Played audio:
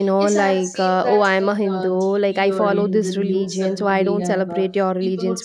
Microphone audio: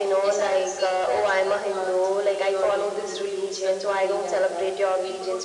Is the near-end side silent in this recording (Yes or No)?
Yes